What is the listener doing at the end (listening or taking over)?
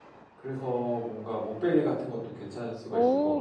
taking over